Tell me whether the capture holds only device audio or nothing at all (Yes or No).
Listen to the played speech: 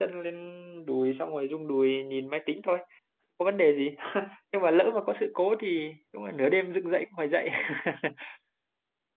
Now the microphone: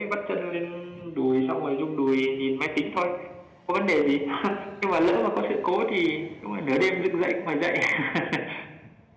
Yes